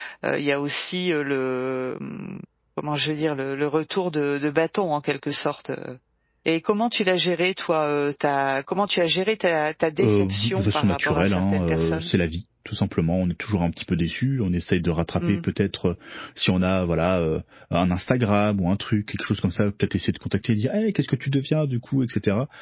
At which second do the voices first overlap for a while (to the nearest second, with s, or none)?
10 s